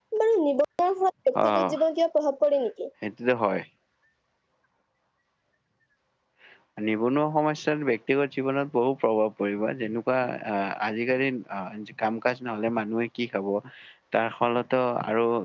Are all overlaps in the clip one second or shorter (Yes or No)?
Yes